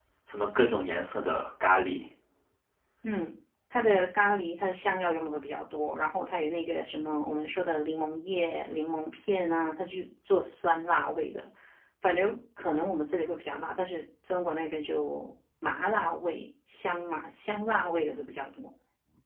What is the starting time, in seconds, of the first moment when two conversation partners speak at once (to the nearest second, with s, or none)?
none